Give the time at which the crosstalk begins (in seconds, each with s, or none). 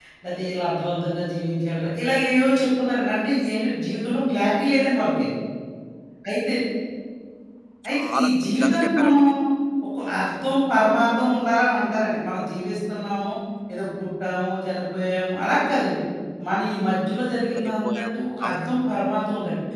7.9 s